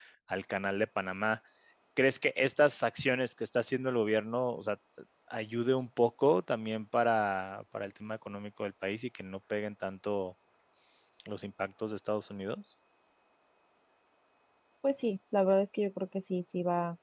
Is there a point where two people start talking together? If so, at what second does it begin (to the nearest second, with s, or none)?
none